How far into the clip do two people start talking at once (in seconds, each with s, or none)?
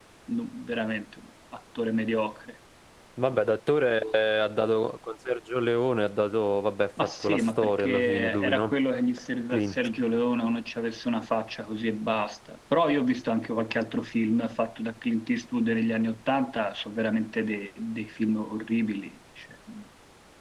7.0 s